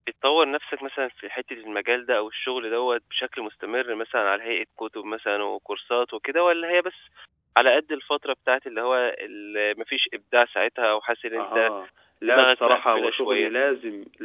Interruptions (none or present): present